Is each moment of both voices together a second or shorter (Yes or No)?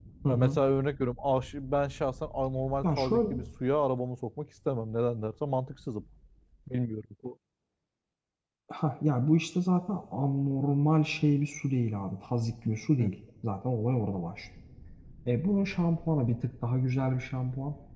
Yes